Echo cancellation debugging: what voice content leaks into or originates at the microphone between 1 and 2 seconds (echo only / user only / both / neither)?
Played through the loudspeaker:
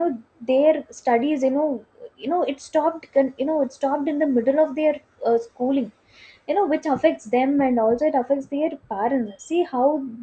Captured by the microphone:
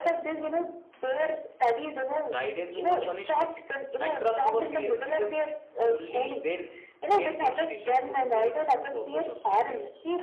echo only